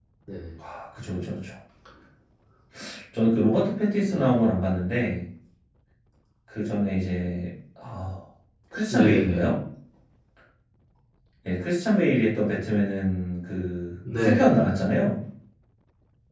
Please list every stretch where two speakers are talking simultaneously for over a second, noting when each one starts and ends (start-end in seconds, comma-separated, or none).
none